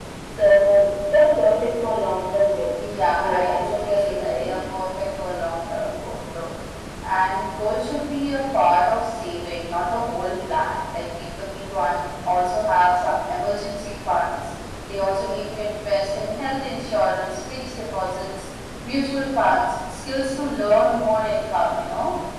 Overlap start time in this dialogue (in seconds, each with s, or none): 3.1 s